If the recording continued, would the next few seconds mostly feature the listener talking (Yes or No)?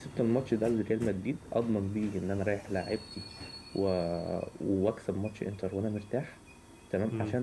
No